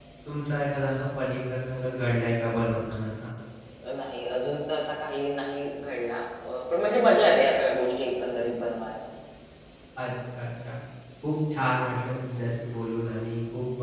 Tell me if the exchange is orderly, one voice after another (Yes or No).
Yes